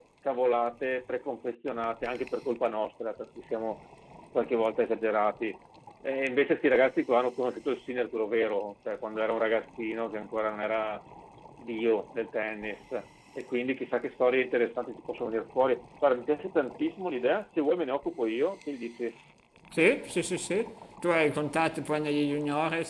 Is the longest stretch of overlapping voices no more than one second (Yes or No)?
Yes